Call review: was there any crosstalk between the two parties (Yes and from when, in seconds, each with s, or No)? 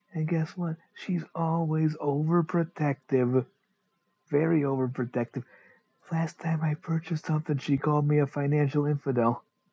No